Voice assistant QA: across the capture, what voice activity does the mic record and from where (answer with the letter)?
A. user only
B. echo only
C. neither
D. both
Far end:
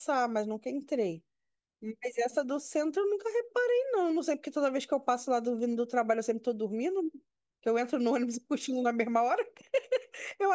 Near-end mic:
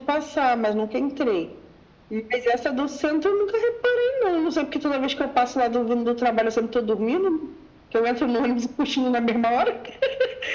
B